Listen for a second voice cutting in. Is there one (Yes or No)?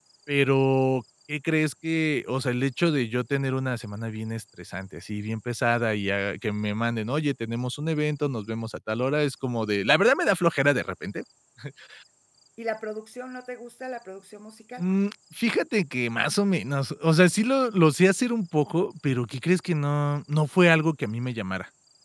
No